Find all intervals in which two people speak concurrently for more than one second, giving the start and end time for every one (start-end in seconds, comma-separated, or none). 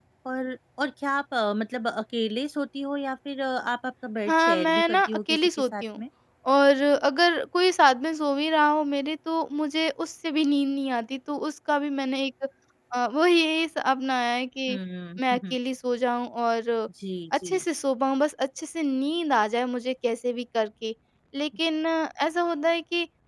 4.3-6.0